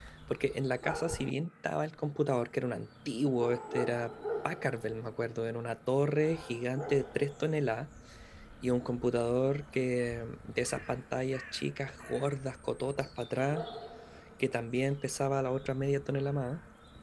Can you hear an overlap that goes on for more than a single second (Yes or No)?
No